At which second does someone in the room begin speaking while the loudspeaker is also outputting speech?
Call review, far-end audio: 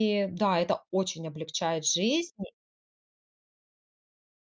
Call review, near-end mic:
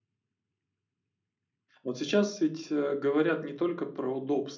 2 s

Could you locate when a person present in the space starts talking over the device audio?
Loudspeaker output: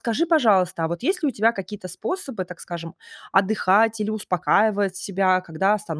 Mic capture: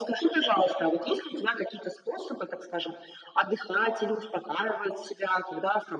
none

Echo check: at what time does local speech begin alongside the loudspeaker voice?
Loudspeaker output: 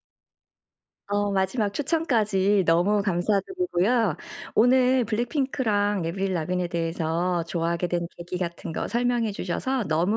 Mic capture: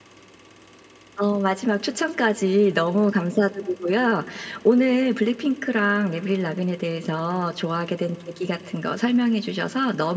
none

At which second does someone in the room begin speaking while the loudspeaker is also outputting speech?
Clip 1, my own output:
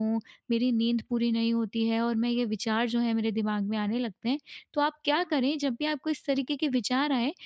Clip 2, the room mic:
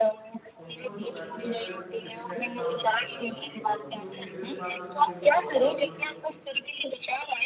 1 s

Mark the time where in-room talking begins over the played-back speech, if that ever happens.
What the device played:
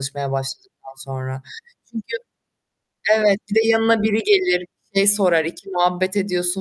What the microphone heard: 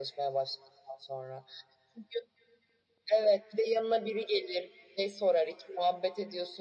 none

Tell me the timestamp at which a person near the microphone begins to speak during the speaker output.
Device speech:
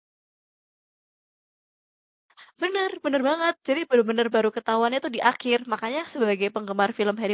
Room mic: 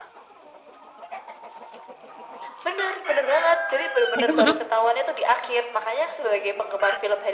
4 s

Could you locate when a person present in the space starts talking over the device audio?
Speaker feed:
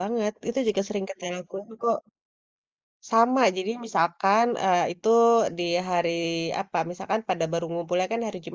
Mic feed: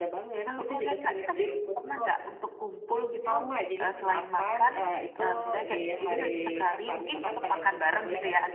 0 s

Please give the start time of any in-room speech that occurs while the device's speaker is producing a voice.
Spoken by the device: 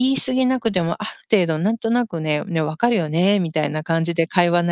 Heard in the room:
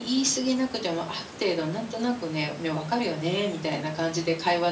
none

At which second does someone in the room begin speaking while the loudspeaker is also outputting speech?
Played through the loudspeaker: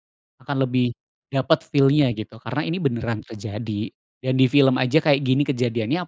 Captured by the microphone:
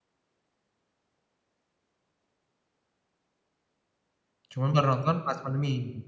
5 s

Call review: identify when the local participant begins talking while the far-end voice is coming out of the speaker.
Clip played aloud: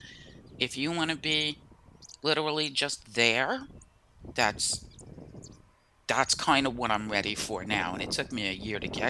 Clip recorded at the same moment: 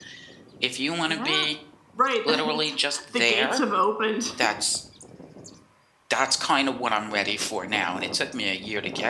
1 s

